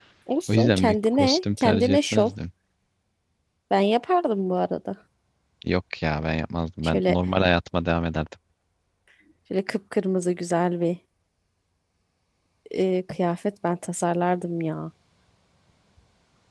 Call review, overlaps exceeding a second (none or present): present